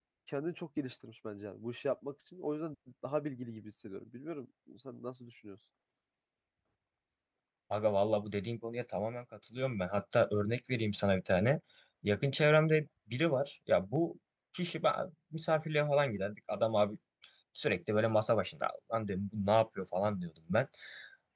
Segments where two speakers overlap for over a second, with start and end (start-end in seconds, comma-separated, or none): none